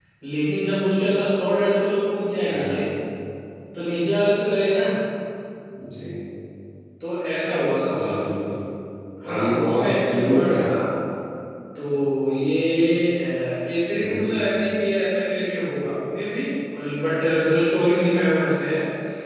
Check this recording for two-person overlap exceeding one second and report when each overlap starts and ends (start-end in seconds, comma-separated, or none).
9.3-10.7